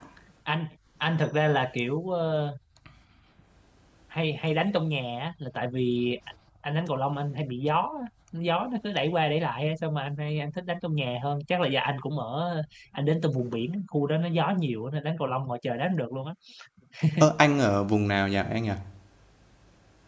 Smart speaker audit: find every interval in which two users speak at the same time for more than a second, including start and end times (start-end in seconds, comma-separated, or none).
none